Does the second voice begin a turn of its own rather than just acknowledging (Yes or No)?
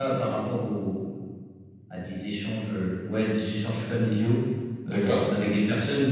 No